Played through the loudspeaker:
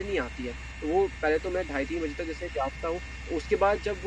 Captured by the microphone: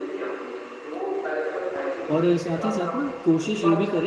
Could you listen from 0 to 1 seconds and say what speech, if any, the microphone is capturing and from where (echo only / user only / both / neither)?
echo only